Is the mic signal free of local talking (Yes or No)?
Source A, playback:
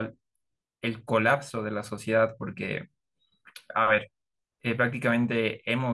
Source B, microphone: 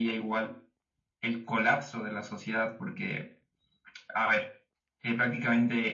Yes